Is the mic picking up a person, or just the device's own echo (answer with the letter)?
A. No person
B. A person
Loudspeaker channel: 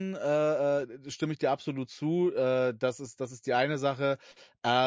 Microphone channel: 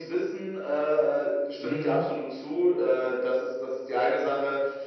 B